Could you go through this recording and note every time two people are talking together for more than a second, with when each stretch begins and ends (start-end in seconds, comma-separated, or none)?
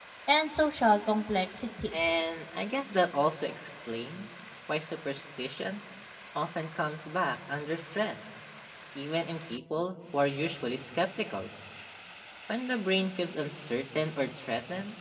none